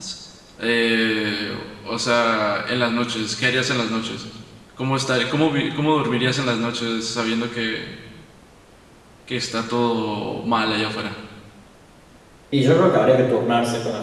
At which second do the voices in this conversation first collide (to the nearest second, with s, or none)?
none